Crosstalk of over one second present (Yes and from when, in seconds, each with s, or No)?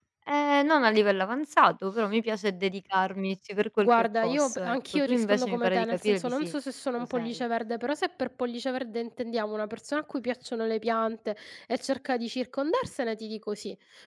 Yes, from 3.8 s